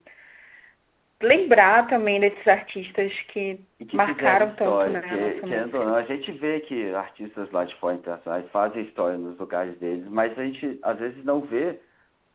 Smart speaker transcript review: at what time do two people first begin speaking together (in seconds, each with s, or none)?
3.8 s